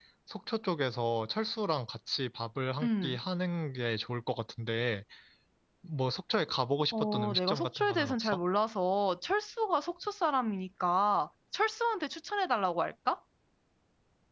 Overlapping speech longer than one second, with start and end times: 6.9-8.4

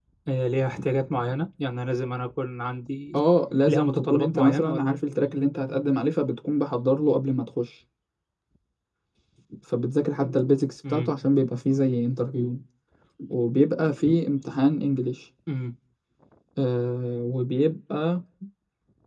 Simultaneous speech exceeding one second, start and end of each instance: 3.7-4.9

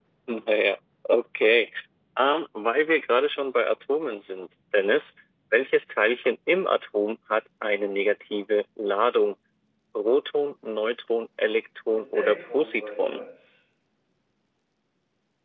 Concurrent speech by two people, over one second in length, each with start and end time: 11.9-13.2

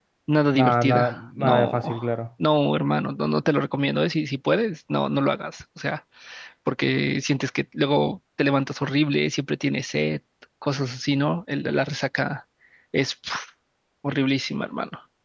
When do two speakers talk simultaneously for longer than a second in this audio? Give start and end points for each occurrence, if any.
0.5-1.8

